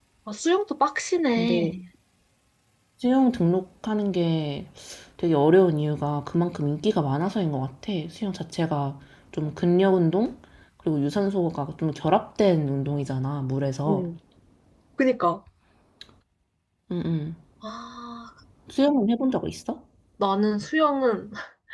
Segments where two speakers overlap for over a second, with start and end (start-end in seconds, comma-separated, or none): none